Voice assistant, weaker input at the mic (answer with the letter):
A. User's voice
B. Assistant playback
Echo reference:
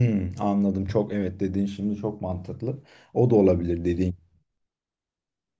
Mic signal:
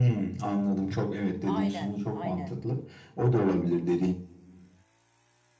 A